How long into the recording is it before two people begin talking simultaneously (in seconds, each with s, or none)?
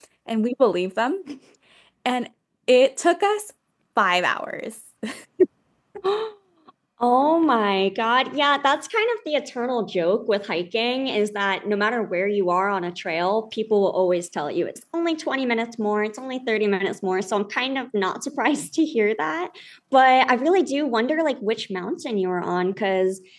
none